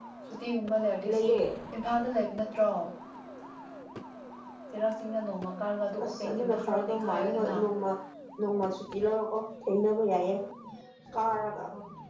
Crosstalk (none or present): present